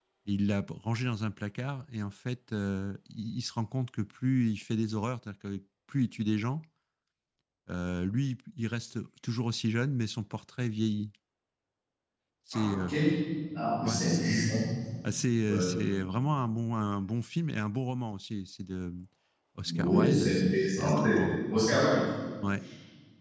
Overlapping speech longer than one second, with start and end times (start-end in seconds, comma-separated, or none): 19.7-21.2